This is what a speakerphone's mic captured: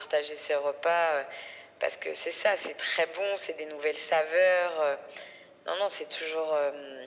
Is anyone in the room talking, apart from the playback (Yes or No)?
No